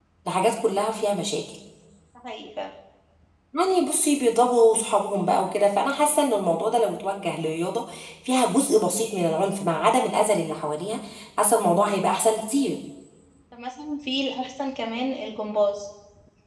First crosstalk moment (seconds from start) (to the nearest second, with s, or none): none